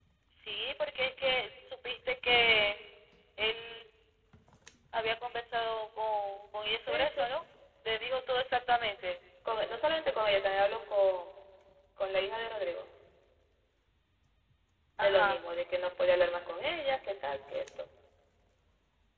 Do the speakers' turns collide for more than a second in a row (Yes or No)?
No